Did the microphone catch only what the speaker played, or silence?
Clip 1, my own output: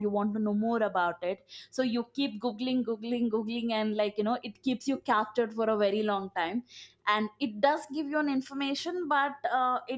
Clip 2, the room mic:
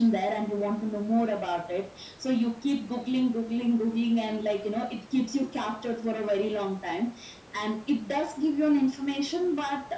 Yes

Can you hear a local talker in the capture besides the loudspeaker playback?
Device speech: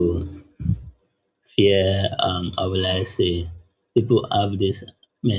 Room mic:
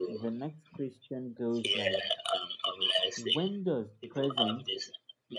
Yes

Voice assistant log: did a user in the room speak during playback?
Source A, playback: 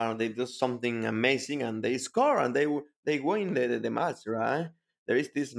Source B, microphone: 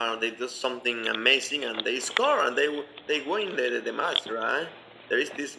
No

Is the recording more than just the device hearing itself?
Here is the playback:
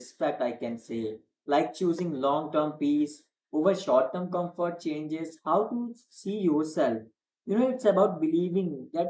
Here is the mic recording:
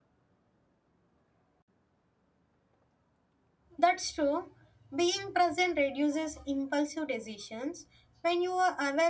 Yes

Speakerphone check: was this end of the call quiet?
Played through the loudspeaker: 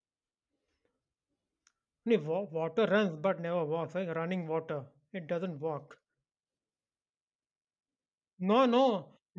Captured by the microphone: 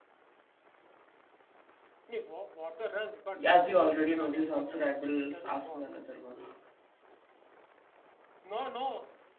No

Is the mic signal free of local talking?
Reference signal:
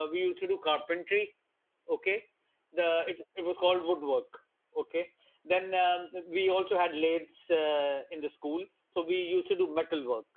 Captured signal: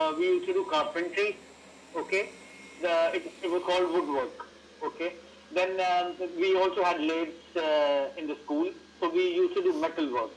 Yes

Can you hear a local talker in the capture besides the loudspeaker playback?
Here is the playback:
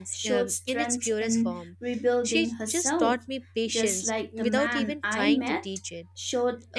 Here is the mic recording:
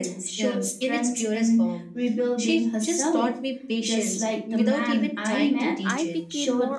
Yes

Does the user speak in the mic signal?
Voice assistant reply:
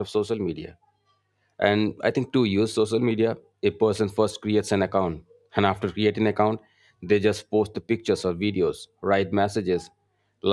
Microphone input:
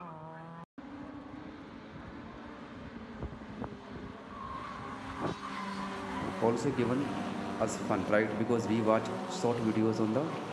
Yes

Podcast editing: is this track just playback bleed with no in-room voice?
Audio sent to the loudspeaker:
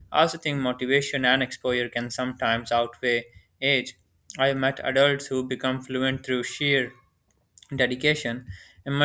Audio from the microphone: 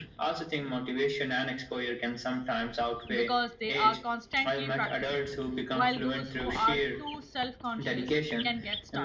No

